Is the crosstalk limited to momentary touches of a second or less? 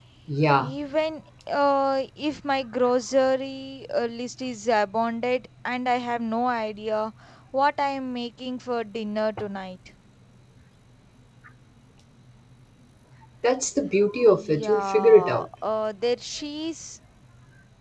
No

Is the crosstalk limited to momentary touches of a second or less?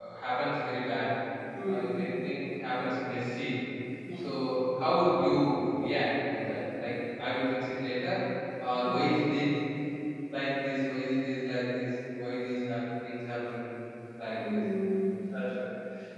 Yes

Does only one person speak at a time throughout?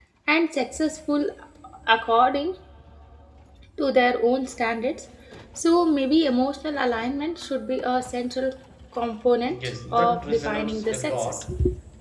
No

